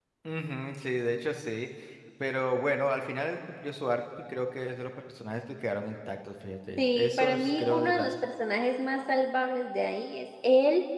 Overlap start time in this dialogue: 6.8 s

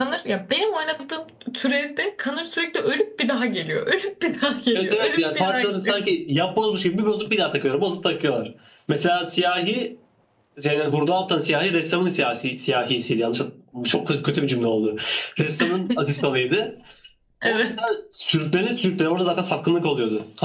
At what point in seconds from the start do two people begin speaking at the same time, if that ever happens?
4.7 s

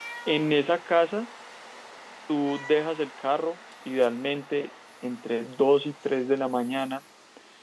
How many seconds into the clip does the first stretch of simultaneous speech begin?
none

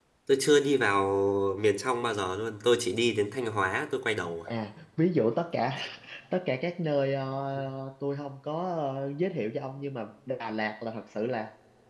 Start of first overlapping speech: none

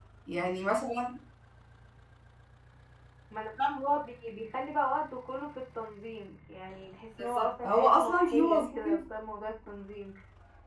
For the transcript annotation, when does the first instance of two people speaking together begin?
7.2 s

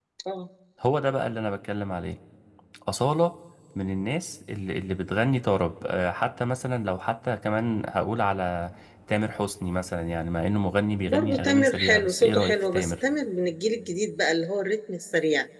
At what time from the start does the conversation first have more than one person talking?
11.1 s

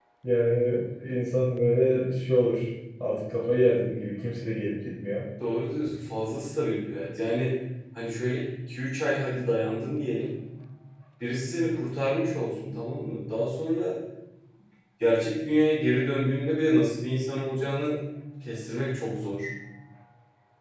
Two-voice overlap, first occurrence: none

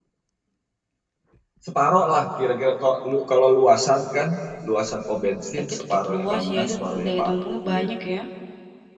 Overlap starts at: 5.7 s

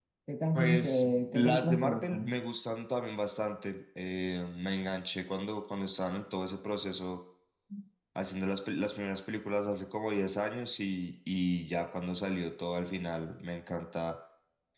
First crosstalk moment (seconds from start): 0.5 s

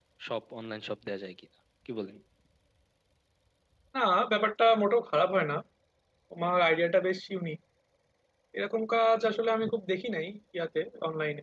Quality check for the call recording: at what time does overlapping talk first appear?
none

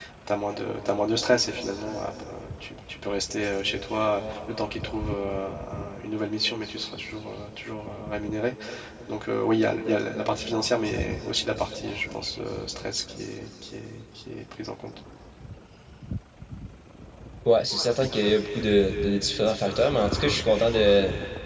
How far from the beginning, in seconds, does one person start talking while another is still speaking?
none

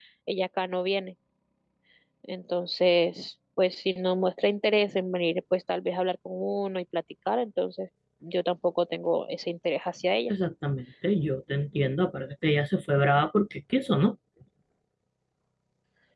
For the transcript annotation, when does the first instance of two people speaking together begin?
none

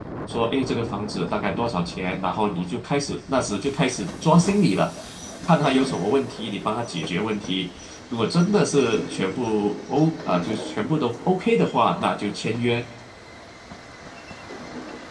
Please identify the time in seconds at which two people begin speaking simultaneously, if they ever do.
none

